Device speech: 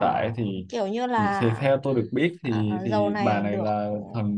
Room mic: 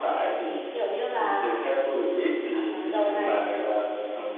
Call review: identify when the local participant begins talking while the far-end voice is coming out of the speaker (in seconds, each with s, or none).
3.0 s